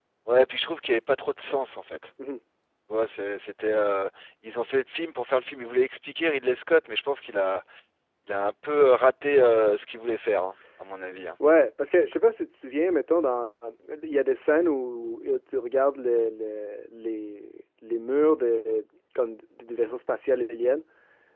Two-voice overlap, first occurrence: none

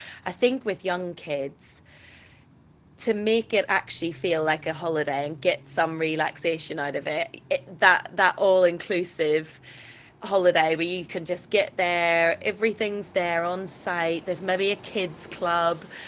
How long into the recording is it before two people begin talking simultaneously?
none

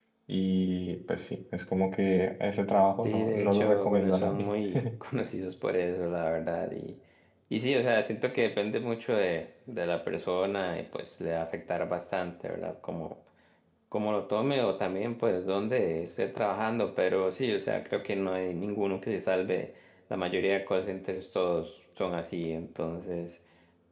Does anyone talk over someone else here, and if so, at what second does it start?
3.0 s

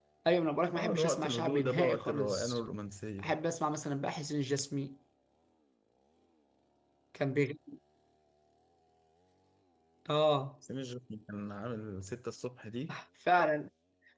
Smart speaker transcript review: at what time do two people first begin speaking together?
0.8 s

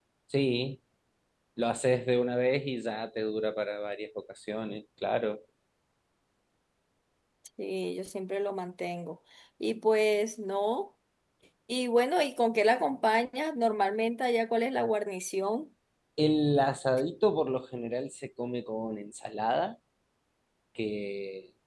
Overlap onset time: none

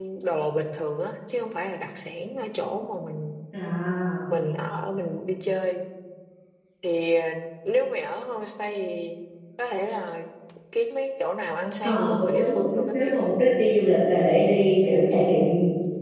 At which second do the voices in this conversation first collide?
11.8 s

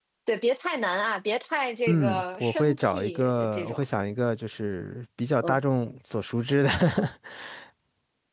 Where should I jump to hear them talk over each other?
1.9 s

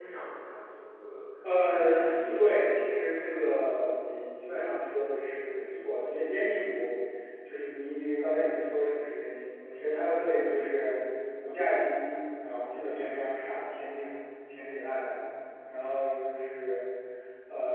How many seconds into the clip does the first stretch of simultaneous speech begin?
1.6 s

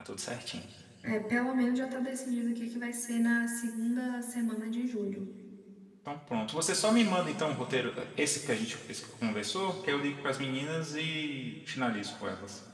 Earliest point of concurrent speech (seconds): none

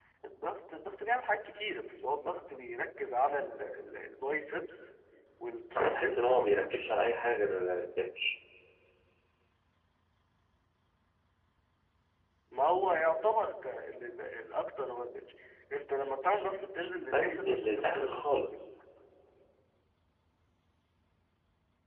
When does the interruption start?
5.8 s

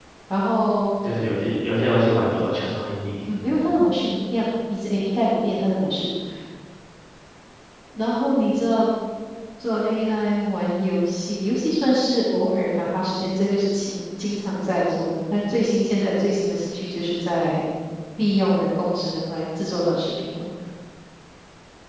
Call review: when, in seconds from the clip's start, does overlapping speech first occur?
none

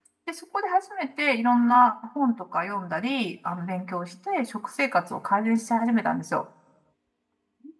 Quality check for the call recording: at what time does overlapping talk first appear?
none

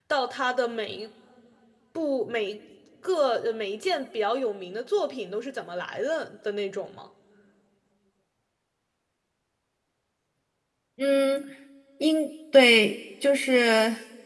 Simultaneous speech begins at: none

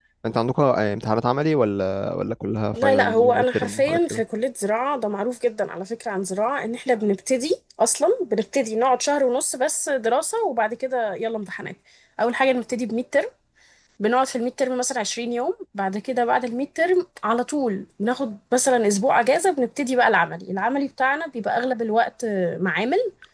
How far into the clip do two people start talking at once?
2.8 s

